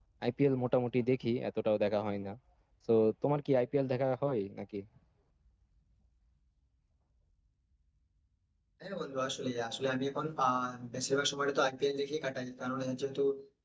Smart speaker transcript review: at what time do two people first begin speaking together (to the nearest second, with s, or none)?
none